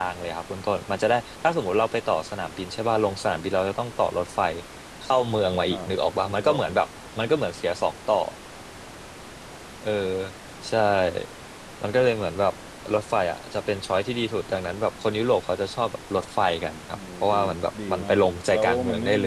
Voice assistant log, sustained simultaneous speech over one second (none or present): present